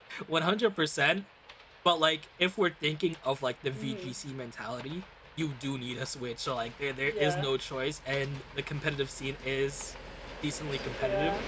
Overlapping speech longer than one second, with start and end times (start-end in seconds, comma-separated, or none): none